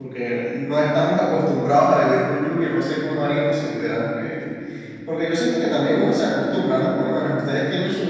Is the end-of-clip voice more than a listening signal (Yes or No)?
No